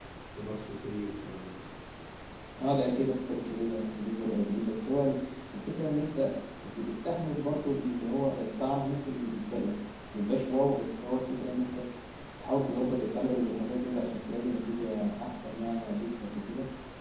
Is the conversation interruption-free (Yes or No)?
Yes